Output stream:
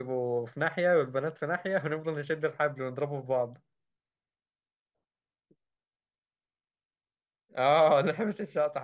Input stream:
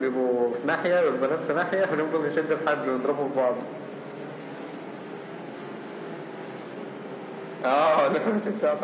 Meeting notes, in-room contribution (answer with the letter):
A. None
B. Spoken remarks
A